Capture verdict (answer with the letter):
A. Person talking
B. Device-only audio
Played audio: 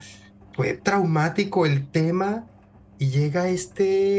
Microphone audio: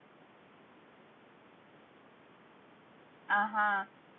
A